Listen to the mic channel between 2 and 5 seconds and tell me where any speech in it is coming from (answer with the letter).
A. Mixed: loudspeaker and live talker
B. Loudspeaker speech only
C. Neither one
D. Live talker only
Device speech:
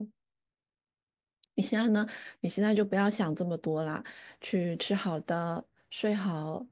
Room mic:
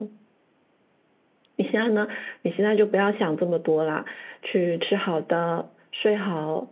B